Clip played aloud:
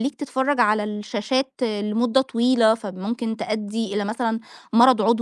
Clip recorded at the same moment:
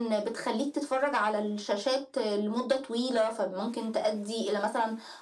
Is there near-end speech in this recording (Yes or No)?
No